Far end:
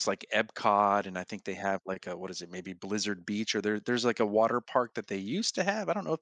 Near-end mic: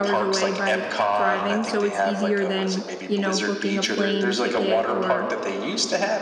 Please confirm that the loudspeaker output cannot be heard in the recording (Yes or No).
No